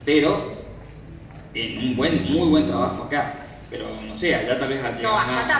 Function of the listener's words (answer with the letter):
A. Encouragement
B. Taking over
B